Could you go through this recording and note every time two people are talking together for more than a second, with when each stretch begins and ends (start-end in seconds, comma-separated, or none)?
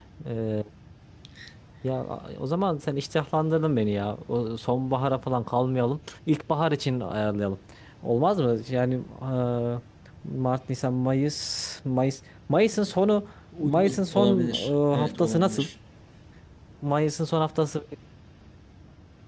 13.6-15.6